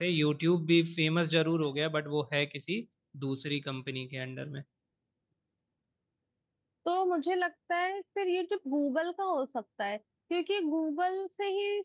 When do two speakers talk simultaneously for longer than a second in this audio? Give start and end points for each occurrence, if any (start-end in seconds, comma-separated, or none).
none